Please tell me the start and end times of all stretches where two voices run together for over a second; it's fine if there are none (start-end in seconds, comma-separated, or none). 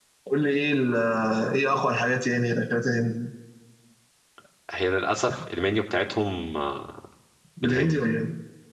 none